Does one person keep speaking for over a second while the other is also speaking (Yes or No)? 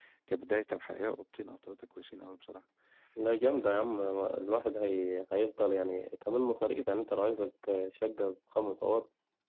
No